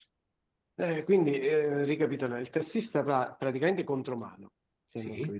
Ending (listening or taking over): listening